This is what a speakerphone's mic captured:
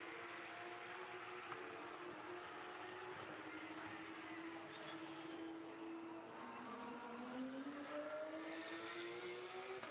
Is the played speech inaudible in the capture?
Yes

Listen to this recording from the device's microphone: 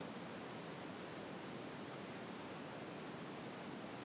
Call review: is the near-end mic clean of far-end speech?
Yes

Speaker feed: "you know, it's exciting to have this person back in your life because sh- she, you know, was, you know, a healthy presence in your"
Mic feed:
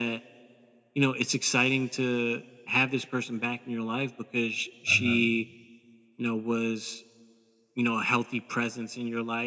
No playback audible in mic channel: No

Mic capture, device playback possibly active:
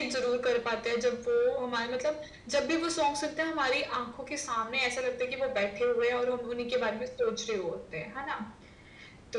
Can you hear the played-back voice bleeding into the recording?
Yes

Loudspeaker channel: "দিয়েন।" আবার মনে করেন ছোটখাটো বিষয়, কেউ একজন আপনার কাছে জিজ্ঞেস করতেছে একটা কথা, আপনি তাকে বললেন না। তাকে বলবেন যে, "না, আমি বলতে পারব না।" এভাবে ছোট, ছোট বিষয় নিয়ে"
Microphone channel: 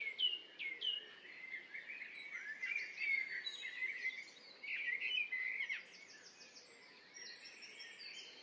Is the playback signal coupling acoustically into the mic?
No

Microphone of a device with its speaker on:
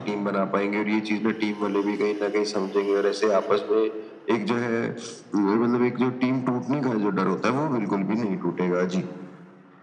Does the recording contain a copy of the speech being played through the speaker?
Yes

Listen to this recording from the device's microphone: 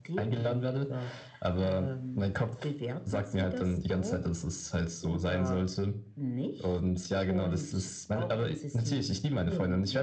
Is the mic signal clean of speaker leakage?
No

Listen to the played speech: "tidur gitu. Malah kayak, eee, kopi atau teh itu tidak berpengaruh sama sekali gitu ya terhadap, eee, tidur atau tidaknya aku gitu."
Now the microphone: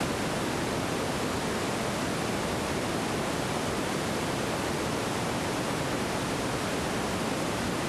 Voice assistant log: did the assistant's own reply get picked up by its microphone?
No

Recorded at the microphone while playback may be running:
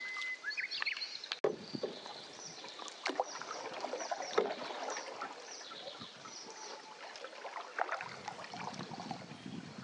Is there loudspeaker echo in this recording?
No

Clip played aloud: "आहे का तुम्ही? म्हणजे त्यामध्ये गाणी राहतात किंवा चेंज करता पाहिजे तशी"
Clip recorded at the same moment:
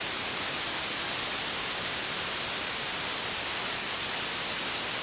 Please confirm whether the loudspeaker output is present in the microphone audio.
No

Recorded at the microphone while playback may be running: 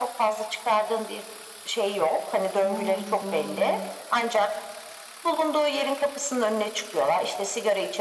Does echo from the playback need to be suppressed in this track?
Yes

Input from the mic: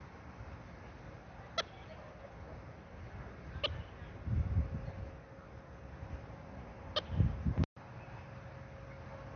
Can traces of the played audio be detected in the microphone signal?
No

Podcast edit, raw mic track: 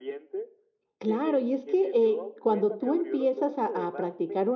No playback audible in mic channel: No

